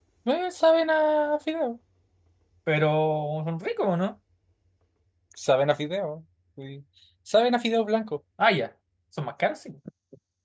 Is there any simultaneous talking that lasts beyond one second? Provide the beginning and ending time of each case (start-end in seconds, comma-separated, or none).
none